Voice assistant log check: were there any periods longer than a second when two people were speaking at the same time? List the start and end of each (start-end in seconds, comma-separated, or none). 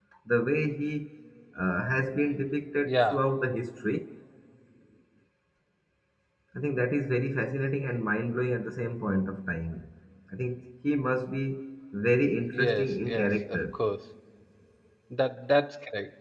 12.5-13.8